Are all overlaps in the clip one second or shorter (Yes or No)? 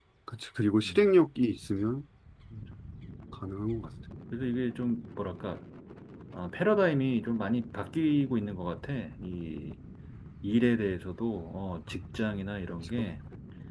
Yes